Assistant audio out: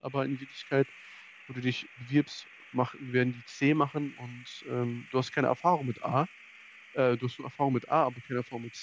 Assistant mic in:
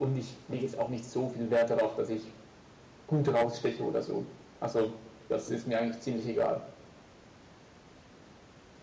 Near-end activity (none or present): present